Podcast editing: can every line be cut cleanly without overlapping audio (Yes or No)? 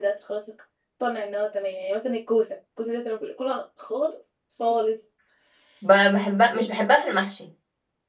Yes